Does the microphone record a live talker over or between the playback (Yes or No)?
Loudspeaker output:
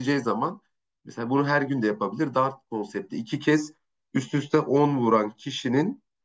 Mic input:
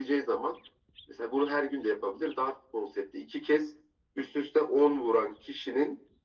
No